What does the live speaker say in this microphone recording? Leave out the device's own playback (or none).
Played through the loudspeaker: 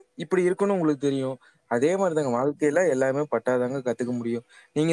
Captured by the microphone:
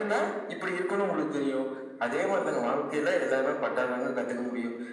none